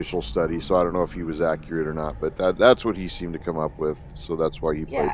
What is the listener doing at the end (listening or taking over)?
taking over